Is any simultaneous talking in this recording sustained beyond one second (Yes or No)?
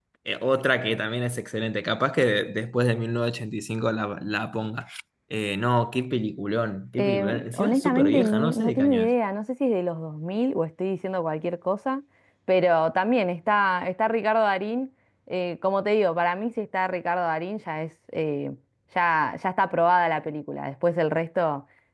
Yes